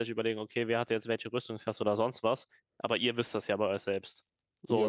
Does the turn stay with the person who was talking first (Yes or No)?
No